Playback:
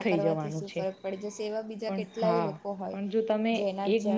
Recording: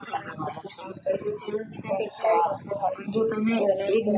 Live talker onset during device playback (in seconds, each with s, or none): none